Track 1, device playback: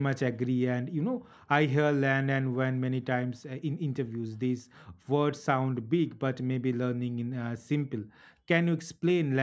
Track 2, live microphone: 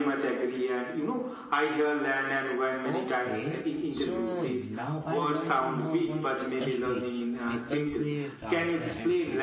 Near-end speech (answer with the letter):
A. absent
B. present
B